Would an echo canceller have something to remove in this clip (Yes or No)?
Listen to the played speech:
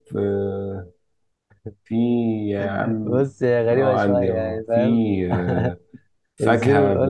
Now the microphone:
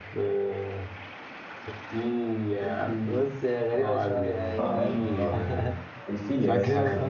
Yes